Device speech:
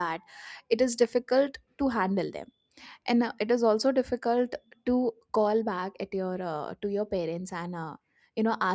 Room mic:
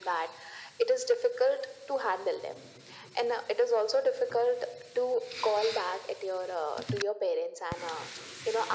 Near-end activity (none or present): none